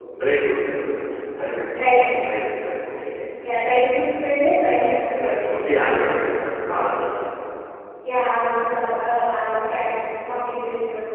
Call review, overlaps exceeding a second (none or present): none